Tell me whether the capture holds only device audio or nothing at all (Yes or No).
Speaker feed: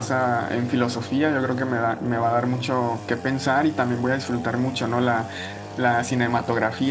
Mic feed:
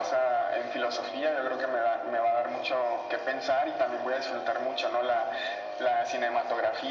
Yes